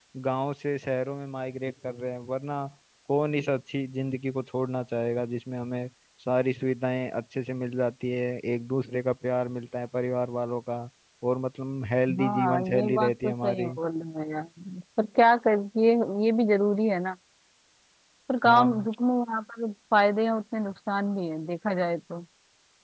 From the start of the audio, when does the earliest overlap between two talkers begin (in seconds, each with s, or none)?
12.2 s